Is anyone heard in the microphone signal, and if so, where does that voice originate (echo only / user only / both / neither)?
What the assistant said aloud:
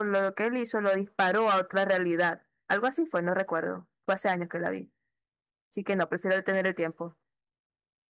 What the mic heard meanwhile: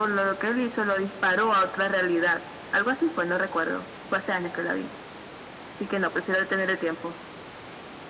echo only